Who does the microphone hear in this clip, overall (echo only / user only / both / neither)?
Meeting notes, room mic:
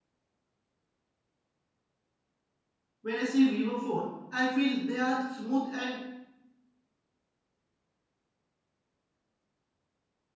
user only